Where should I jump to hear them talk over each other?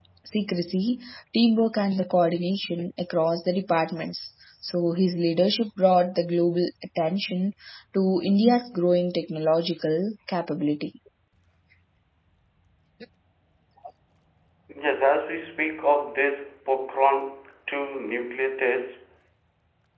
none

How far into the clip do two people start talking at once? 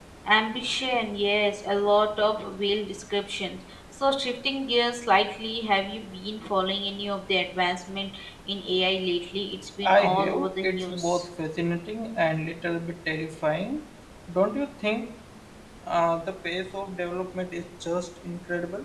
9.8 s

